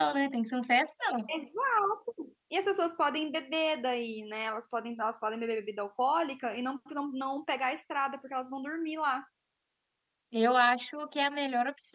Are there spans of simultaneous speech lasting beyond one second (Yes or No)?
No